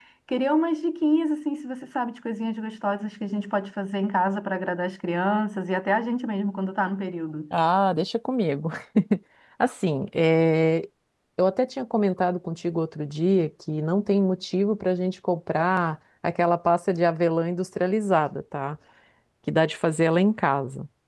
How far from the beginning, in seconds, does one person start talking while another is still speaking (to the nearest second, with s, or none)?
none